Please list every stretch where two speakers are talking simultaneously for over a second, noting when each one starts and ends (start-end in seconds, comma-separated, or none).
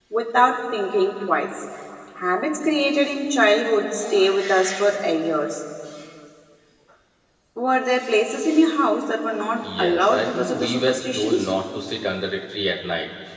9.6-11.5